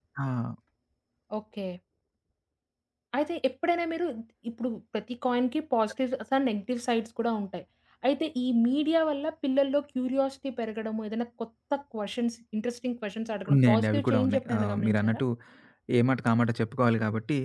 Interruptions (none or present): present